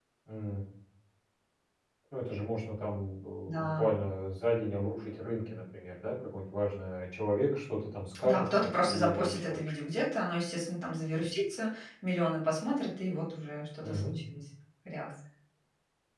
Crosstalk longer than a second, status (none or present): present